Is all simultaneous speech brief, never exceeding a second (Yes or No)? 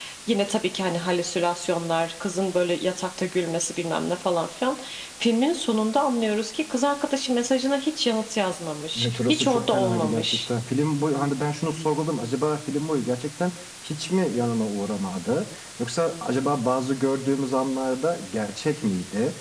No